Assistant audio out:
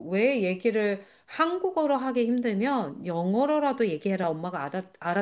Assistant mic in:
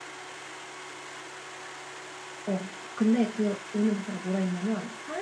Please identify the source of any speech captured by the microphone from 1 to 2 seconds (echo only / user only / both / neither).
neither